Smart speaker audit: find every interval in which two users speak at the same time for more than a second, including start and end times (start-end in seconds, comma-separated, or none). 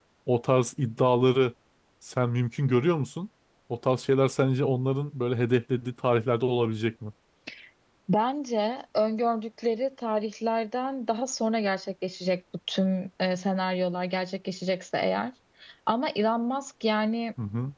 none